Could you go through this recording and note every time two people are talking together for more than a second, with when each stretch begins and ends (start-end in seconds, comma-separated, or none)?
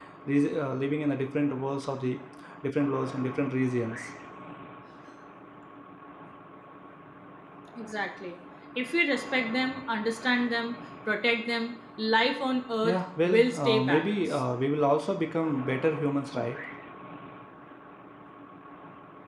12.8-14.4